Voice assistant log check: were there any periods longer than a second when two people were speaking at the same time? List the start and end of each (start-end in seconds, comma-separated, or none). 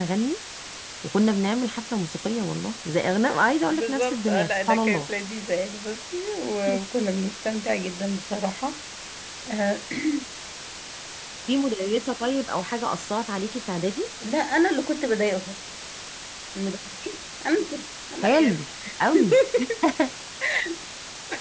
3.7-5.1